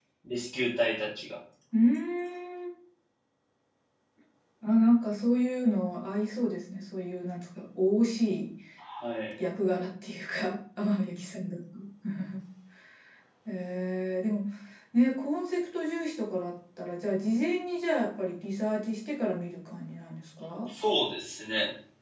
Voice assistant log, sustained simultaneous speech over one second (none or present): none